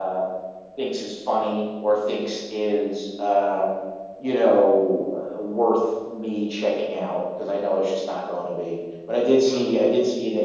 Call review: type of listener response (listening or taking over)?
listening